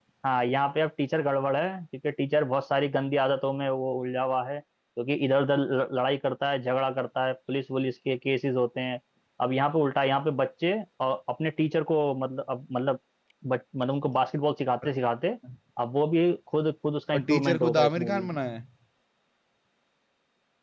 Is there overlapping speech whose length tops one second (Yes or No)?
Yes